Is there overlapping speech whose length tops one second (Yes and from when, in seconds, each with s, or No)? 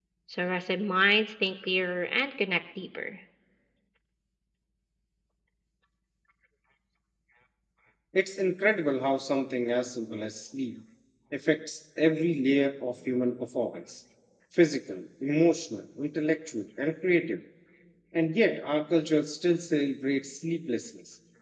No